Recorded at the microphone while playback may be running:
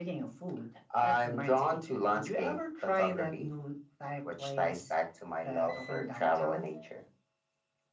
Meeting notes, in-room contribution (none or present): none